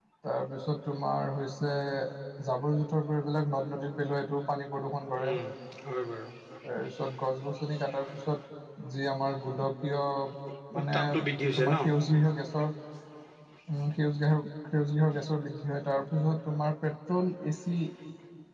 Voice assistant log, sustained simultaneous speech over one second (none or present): none